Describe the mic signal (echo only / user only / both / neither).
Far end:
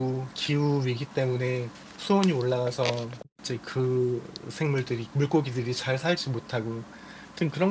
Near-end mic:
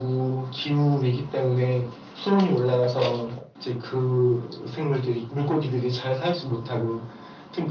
echo only